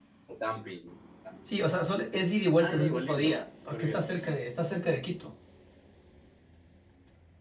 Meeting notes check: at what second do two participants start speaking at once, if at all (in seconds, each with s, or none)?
2.6 s